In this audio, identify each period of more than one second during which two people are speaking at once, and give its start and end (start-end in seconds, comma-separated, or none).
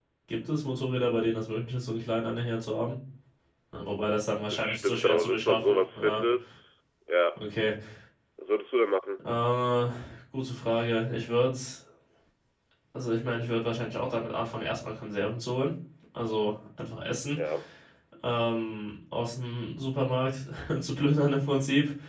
4.4-6.2